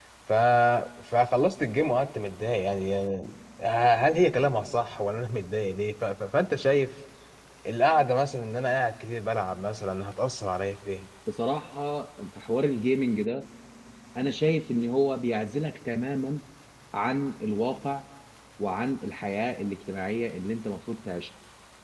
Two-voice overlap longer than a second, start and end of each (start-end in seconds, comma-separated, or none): none